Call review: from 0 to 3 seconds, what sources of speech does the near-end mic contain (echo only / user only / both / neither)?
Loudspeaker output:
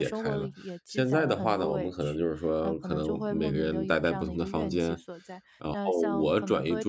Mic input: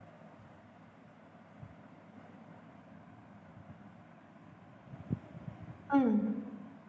neither